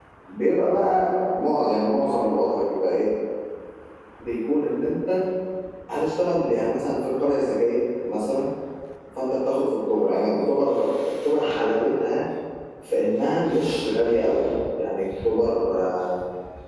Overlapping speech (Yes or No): No